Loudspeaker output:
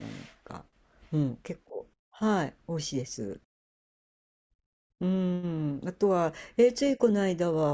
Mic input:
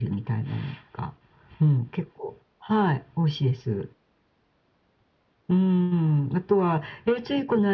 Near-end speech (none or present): none